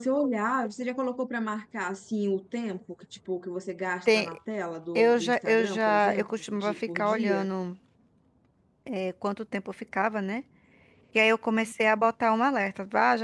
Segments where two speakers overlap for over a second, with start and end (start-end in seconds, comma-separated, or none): 5.0-7.5